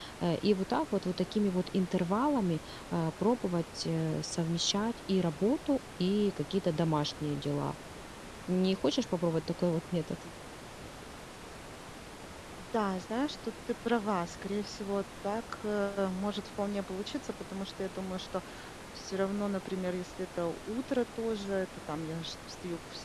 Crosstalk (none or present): none